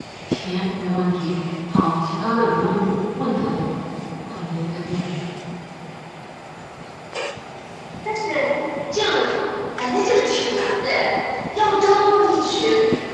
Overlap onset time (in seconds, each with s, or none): none